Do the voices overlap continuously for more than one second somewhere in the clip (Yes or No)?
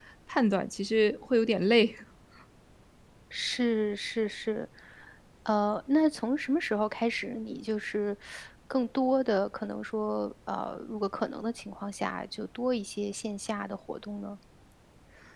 No